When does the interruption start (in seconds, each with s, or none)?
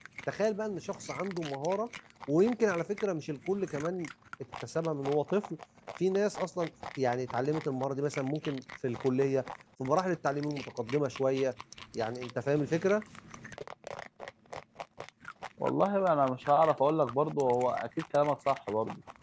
none